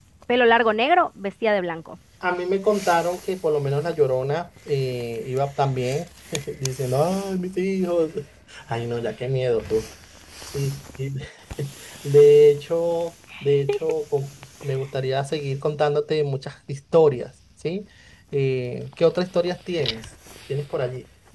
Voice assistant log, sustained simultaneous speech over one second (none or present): none